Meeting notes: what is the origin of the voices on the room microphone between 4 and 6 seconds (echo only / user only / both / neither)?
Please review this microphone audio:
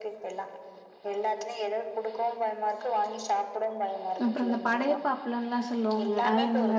both